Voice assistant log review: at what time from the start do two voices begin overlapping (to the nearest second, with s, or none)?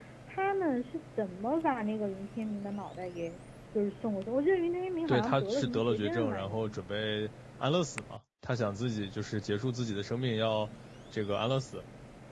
5 s